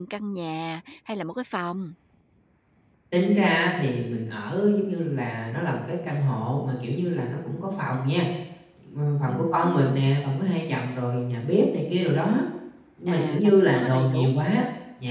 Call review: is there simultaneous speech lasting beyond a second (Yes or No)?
Yes